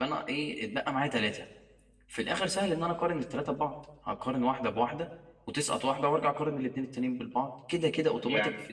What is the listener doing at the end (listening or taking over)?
listening